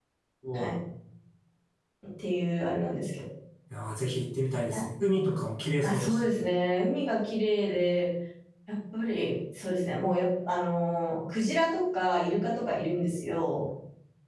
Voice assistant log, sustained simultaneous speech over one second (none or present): none